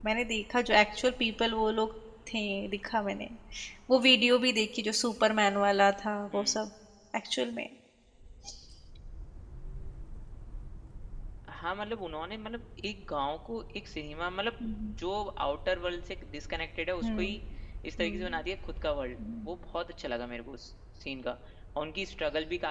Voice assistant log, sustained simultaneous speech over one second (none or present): none